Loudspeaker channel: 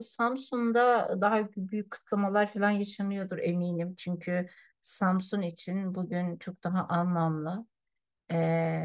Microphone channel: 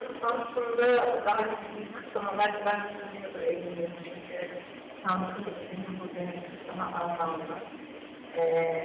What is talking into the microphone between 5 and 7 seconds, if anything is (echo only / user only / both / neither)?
echo only